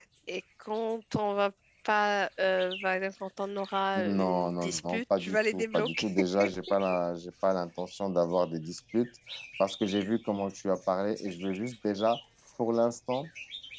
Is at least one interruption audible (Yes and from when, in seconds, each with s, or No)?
Yes, from 4.0 s